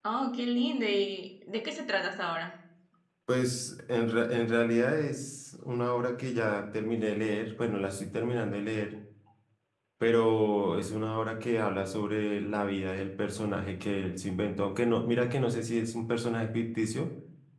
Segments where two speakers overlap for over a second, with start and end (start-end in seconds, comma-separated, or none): none